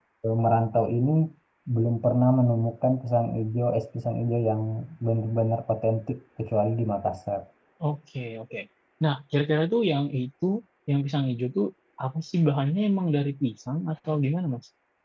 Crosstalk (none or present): none